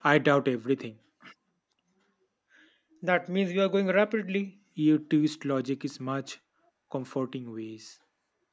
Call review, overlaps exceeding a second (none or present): none